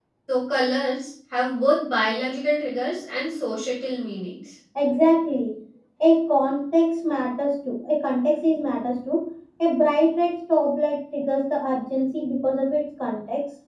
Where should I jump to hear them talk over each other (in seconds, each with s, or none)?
none